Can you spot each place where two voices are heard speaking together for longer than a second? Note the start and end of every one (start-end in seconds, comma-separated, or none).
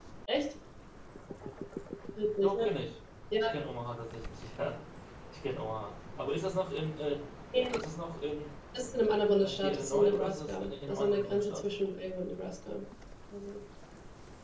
9.4-11.6